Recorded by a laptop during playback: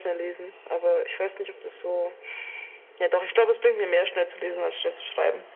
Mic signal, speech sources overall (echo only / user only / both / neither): echo only